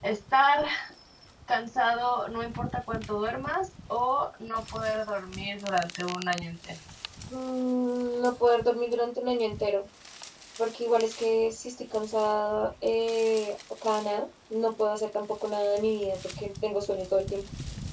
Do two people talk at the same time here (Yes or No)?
No